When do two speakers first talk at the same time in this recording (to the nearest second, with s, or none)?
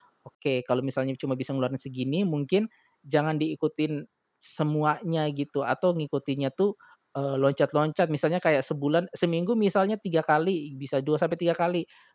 none